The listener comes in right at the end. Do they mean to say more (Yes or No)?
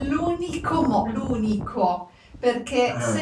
No